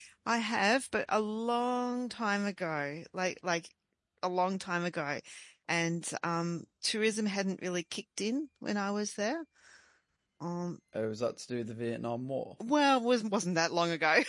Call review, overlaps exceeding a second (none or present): none